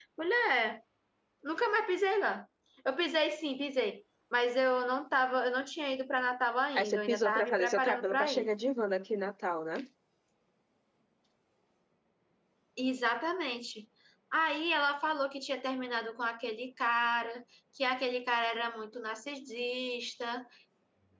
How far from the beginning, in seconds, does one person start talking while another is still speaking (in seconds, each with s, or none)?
6.7 s